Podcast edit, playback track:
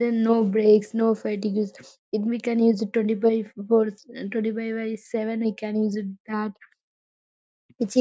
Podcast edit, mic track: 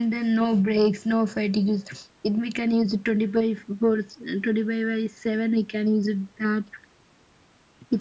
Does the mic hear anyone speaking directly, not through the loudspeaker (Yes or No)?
No